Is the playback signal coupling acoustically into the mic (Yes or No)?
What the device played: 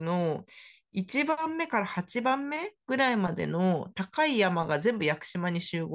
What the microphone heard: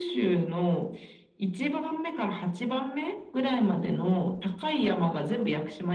Yes